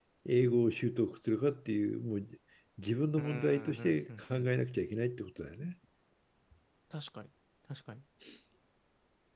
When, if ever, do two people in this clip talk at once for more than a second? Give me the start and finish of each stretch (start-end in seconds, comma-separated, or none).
3.2-4.5